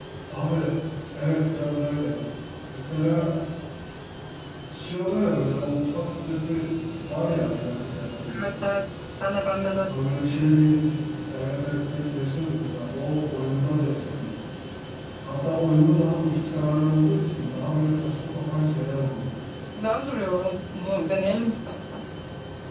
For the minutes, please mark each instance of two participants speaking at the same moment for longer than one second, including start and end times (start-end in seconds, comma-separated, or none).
none